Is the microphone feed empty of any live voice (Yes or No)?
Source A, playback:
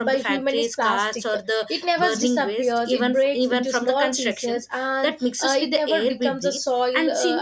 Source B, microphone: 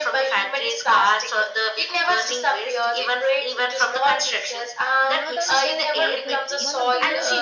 No